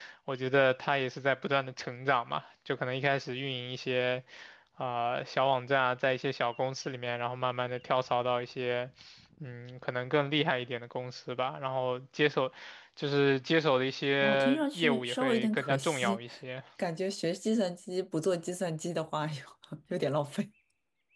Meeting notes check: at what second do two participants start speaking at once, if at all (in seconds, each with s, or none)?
14.2 s